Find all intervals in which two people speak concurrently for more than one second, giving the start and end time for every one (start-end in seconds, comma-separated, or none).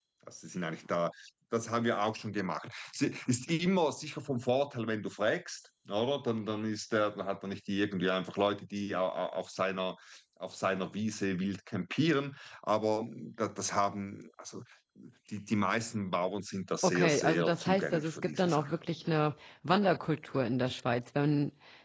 16.8-18.8